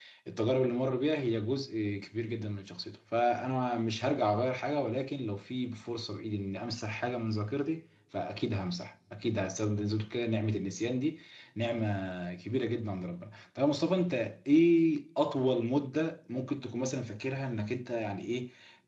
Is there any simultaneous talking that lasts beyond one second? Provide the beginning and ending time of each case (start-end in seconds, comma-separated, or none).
none